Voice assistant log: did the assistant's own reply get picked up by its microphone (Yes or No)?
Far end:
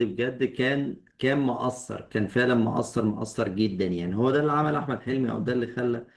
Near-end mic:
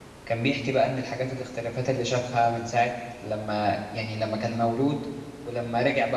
No